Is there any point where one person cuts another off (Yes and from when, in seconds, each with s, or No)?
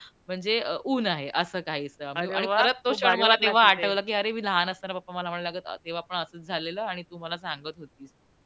Yes, from 2.1 s